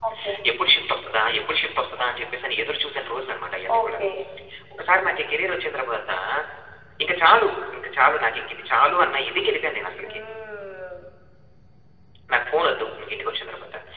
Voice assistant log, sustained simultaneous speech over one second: none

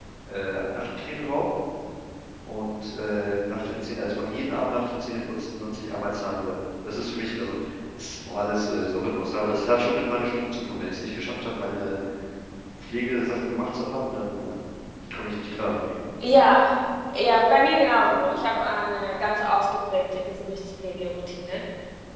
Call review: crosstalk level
none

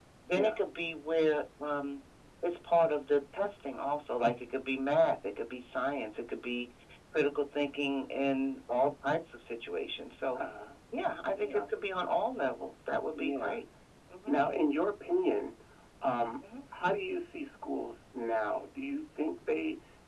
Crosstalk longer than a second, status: none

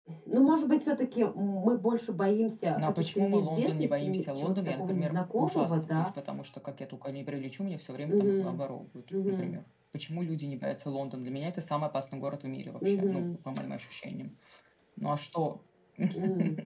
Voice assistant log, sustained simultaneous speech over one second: present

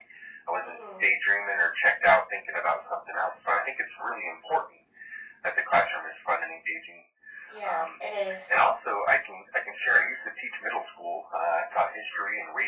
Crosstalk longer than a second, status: none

